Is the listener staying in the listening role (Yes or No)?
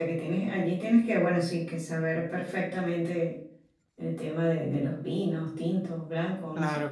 No